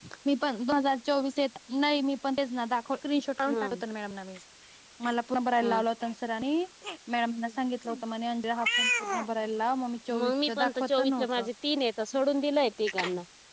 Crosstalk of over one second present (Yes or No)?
Yes